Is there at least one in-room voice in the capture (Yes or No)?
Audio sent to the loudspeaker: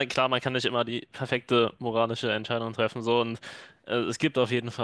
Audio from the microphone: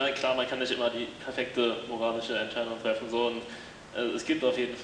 No